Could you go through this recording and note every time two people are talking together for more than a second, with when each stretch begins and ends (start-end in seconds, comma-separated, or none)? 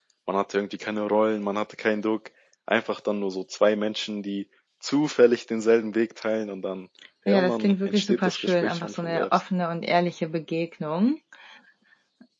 7.3-9.4